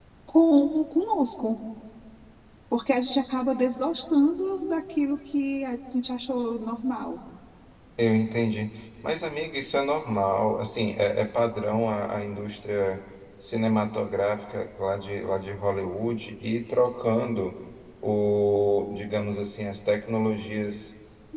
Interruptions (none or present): none